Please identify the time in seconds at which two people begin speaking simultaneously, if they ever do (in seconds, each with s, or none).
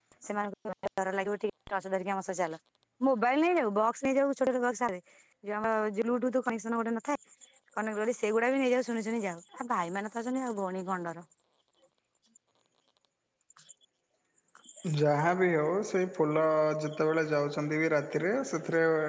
none